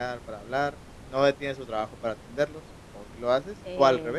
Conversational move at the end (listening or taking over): taking over